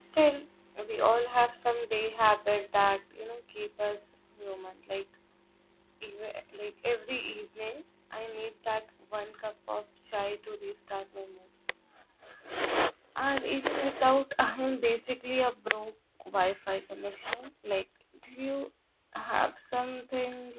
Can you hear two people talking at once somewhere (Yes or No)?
No